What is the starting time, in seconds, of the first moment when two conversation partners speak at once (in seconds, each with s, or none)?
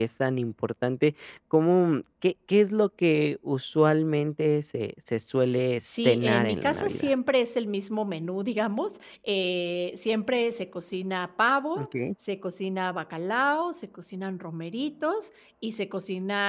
5.9 s